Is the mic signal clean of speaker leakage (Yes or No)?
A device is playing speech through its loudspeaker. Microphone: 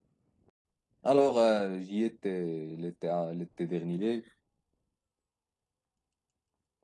Yes